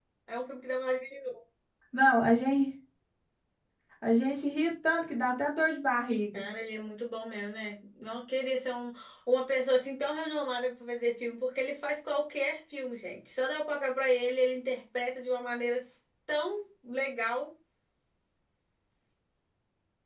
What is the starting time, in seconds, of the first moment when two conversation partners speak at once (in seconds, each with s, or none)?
none